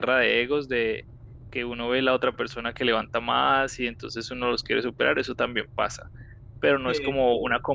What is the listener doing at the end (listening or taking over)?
listening